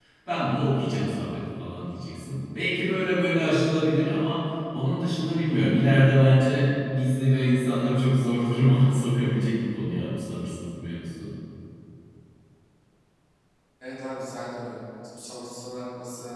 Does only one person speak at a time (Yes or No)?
Yes